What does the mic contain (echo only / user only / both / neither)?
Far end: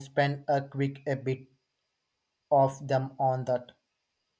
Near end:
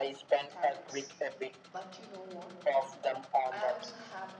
both